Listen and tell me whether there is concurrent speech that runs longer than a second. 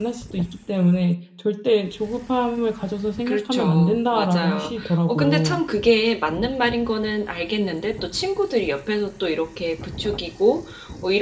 Yes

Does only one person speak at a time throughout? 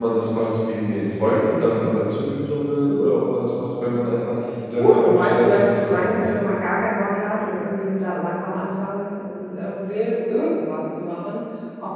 No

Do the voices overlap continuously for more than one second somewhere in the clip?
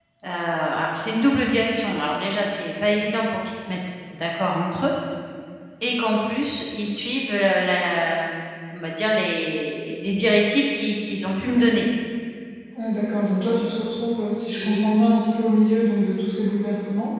No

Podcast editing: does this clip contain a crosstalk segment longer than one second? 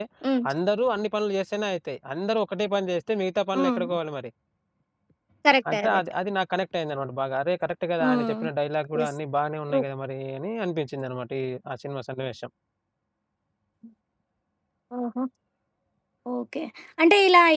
No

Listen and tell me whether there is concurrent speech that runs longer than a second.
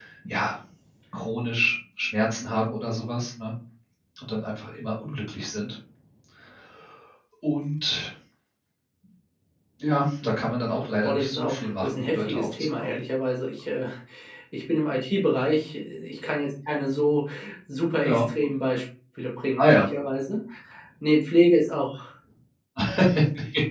Yes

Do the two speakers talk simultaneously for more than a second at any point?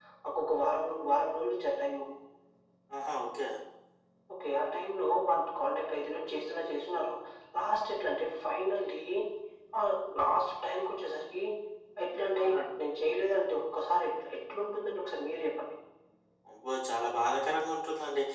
No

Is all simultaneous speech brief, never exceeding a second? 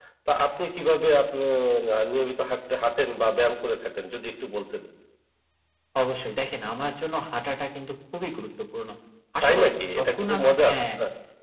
No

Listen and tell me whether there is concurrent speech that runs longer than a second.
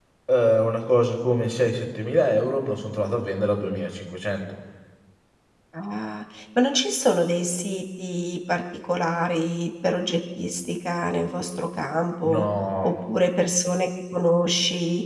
No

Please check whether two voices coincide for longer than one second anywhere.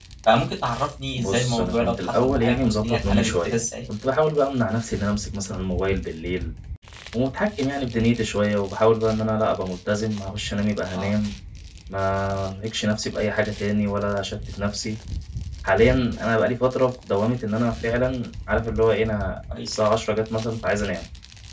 Yes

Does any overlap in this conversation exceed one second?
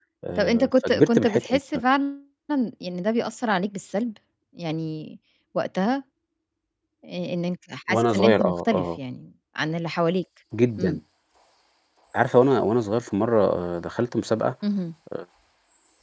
Yes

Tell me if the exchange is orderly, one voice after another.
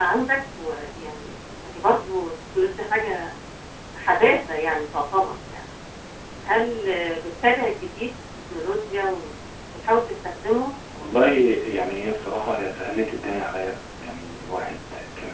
Yes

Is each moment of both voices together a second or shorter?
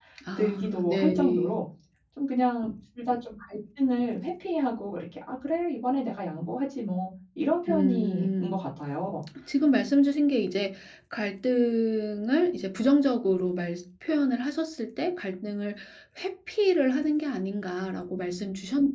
No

